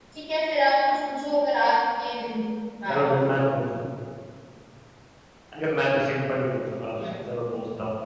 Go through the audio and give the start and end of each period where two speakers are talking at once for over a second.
none

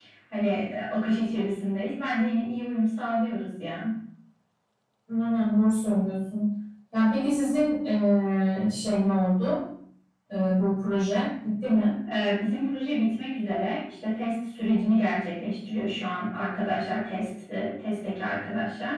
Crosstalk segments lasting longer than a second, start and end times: none

